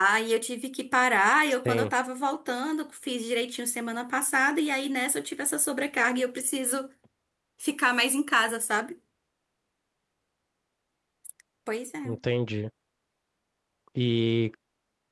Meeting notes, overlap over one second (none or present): none